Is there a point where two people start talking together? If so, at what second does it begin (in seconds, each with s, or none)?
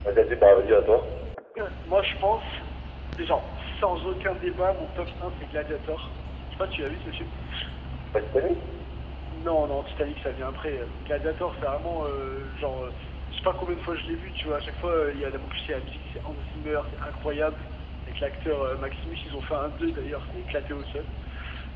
none